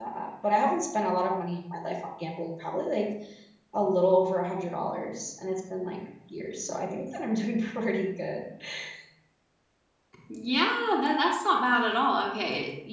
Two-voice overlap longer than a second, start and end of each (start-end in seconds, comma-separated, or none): none